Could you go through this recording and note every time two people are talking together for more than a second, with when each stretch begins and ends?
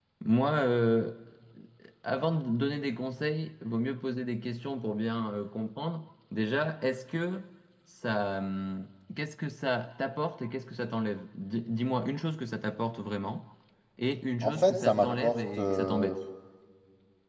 14.4-16.2

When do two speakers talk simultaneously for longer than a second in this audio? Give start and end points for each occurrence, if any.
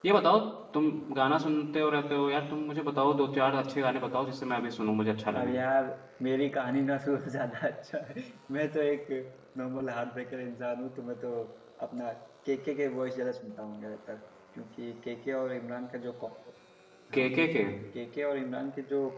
none

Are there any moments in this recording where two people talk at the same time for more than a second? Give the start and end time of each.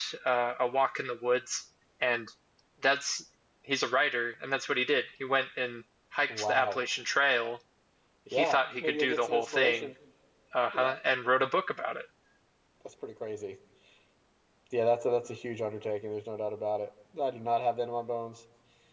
8.3-9.9

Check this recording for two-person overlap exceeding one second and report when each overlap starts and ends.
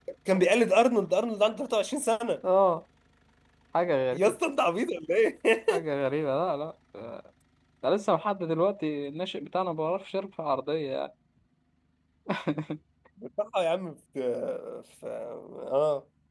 none

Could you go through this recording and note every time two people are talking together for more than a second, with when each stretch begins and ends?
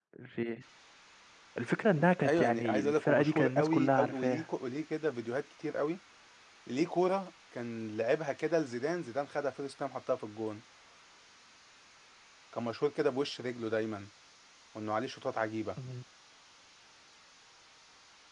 2.2-4.4

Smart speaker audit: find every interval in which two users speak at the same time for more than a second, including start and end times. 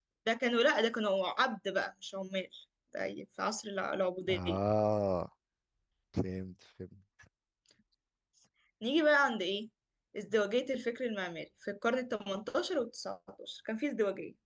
none

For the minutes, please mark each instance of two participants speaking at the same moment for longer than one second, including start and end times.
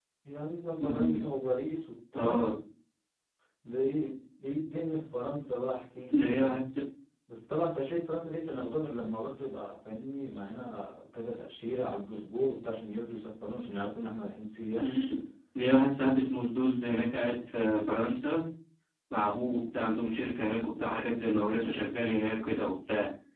none

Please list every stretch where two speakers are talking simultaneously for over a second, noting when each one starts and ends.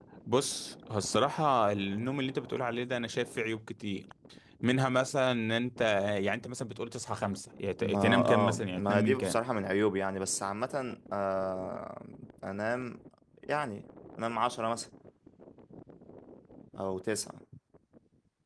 7.8-9.4

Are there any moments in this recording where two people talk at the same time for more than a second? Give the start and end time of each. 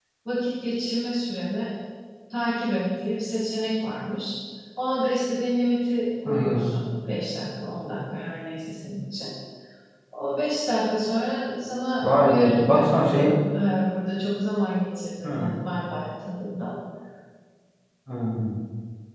12.0-13.3

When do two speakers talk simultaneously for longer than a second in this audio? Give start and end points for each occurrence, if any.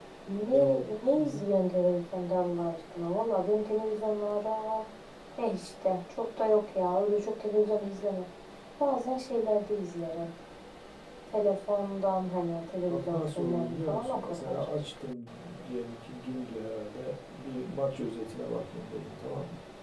12.9-14.7

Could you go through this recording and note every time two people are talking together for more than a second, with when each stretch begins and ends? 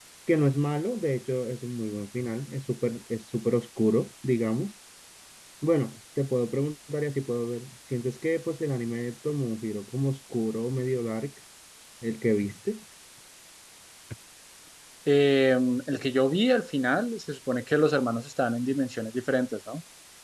none

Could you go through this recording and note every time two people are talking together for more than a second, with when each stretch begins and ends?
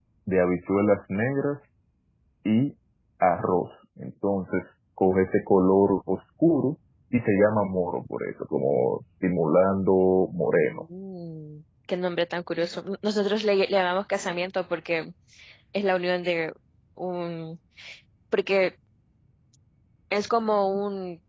none

